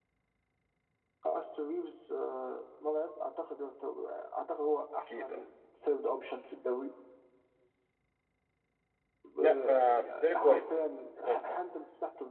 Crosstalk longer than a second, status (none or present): present